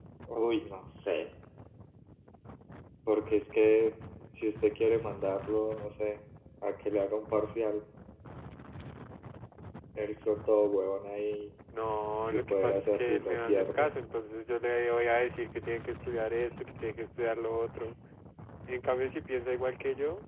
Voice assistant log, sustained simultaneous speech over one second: present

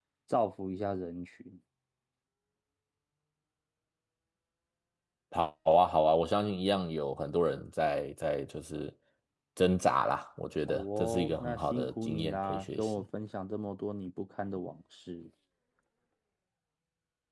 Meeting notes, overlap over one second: present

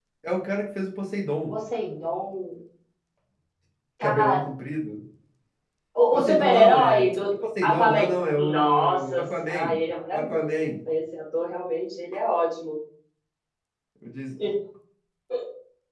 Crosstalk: present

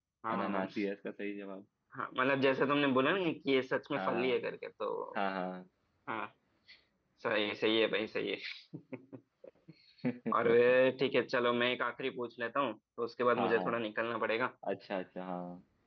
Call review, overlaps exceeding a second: none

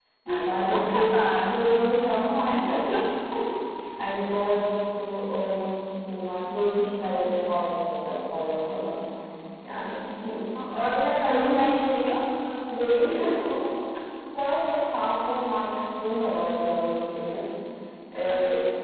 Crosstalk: present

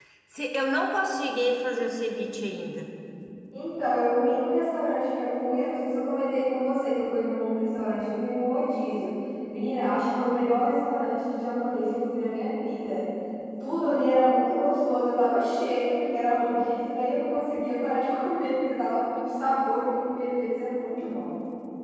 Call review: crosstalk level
none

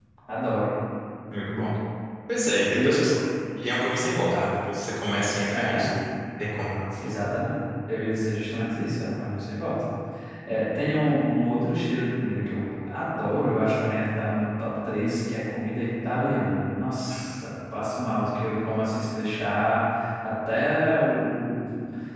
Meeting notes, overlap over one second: none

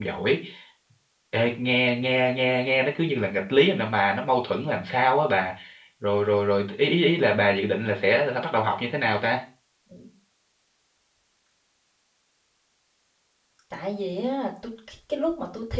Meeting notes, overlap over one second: none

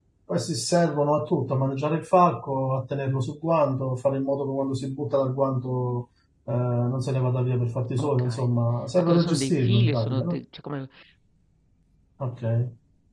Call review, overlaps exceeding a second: present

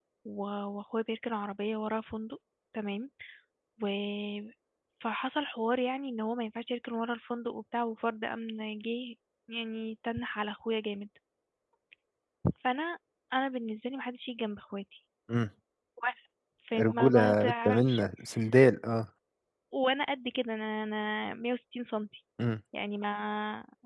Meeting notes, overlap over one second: present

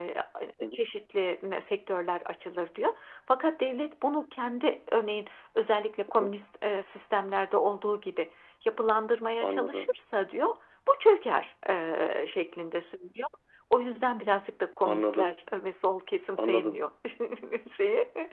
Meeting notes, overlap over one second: none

